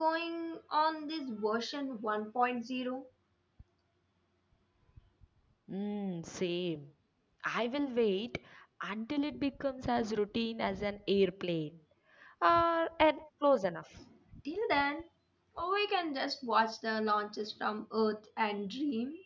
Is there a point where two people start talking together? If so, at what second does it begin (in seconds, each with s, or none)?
none